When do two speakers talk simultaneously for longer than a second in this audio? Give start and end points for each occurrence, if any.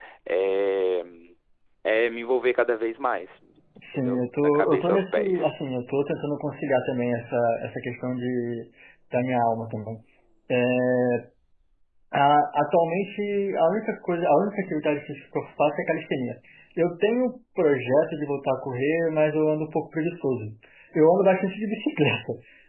3.9-5.5

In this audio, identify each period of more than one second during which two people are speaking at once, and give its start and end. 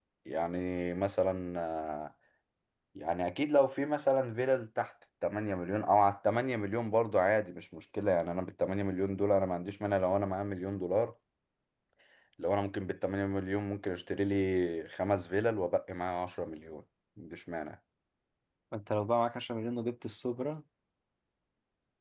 none

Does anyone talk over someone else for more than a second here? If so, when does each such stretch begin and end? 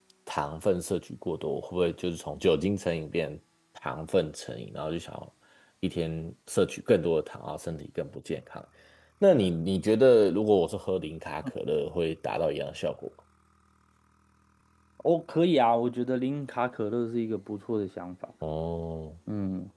none

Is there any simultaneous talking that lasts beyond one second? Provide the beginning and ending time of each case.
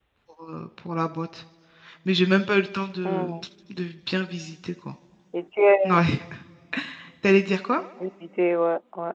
none

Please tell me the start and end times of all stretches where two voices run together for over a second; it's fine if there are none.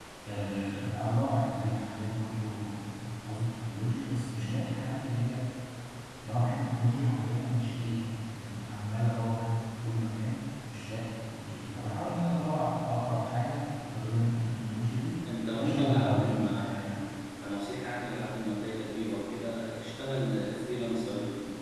15.6-17.0

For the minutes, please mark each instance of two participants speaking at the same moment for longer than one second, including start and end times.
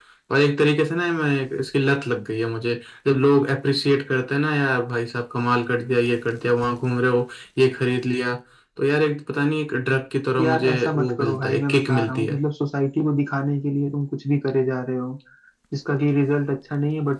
10.4-12.4

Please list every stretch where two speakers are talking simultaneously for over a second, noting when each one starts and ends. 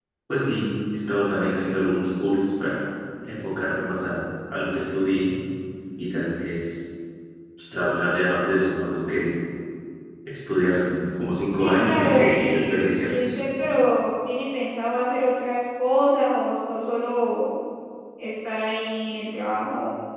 11.6-13.4

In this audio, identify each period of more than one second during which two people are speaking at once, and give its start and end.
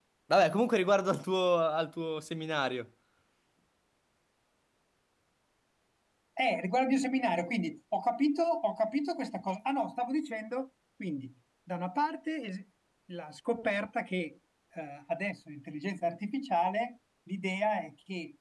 none

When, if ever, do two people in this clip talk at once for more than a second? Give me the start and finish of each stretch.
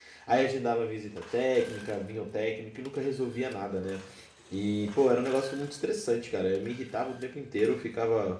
none

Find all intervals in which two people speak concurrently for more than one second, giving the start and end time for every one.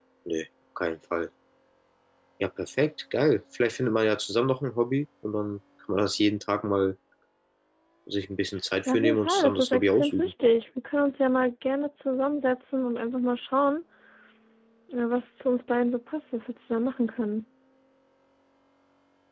8.9-10.3

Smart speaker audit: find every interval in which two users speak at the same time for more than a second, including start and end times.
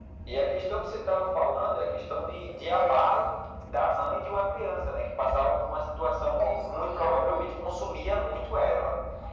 6.3-7.7

